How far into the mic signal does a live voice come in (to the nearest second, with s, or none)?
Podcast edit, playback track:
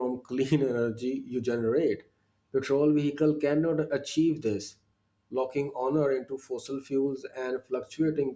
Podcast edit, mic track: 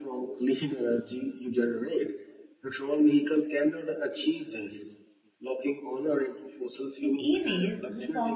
7 s